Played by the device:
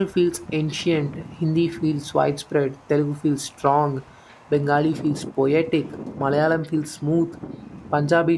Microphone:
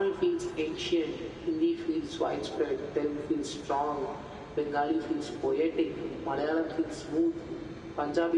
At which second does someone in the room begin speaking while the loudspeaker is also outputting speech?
none

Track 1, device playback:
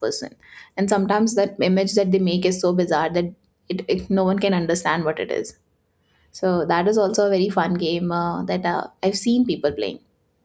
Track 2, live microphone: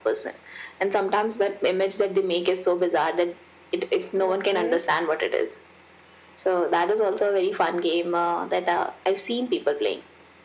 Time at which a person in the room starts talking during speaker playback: 4.2 s

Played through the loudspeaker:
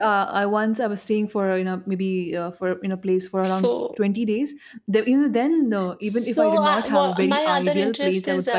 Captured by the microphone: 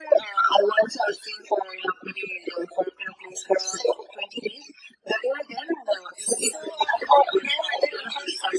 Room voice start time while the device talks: none

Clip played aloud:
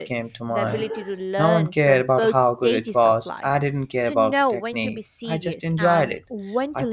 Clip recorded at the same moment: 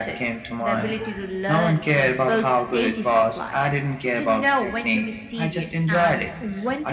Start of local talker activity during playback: none

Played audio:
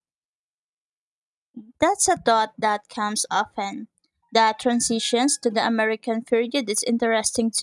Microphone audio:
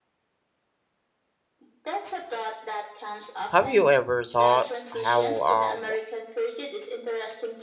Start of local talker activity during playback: 3.5 s

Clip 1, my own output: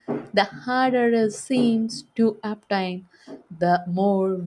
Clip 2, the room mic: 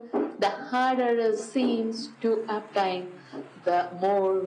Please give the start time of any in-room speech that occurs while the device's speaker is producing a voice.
none

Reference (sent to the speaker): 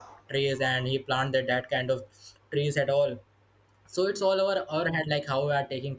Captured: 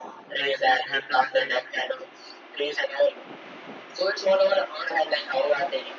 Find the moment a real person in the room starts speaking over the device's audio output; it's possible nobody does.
0.3 s

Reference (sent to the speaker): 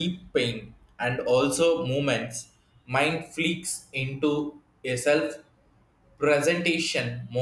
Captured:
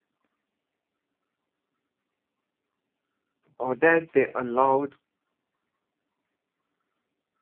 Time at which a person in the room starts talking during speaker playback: 3.6 s

